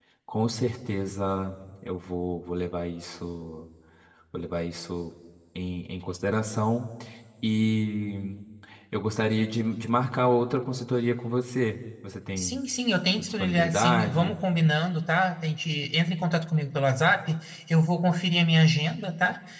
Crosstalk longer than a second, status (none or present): present